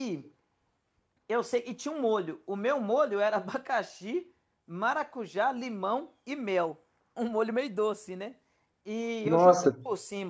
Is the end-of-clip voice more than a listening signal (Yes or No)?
No